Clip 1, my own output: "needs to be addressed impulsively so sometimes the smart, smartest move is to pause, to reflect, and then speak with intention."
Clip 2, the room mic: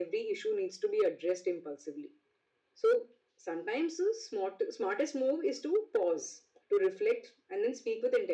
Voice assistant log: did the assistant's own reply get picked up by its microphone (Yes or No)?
Yes